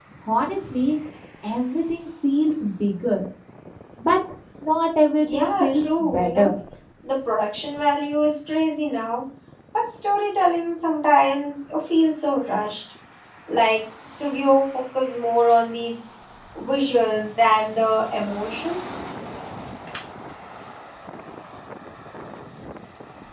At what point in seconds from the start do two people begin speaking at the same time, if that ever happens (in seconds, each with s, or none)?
5.2 s